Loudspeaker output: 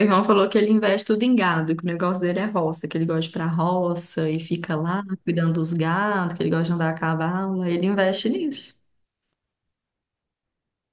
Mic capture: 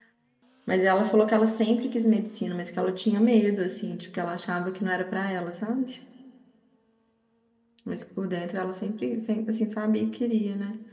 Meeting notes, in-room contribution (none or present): present